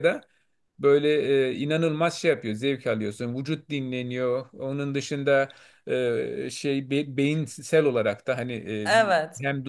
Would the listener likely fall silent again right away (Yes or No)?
Yes